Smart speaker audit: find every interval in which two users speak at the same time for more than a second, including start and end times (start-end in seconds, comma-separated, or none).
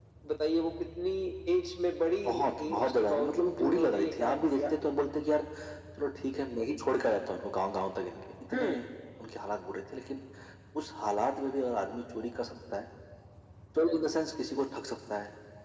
2.3-4.6